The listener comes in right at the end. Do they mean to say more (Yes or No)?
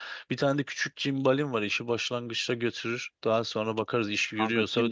Yes